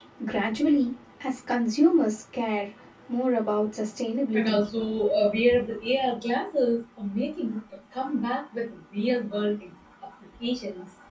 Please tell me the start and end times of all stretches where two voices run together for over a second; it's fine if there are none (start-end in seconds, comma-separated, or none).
none